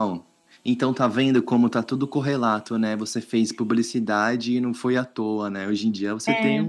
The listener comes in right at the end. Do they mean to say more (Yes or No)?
No